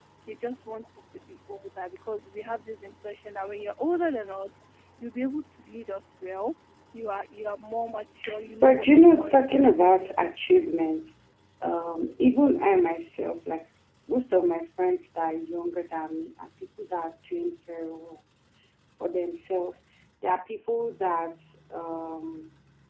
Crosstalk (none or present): present